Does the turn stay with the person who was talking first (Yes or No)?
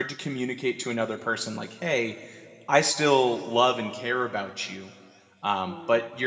Yes